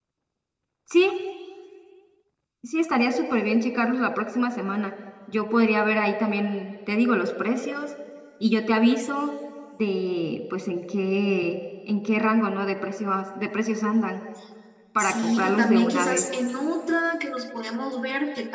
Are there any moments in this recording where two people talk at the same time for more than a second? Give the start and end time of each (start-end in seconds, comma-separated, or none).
15.0-16.2